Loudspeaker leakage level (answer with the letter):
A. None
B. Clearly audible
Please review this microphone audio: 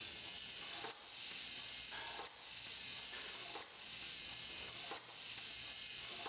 A